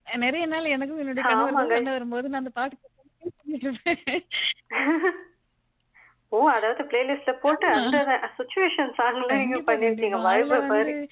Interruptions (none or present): present